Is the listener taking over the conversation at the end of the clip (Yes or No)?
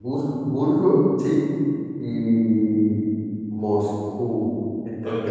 Yes